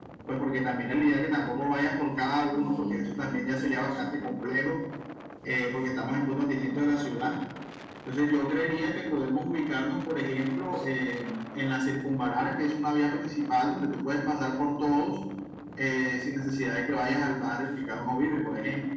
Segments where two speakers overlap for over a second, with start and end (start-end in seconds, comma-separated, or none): 2.5-4.3